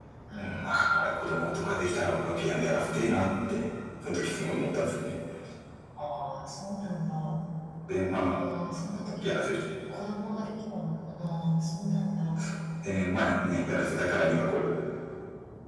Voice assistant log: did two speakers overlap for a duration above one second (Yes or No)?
No